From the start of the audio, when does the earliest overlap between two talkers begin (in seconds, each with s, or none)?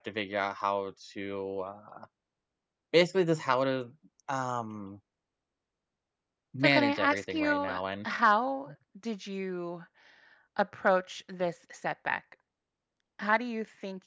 6.6 s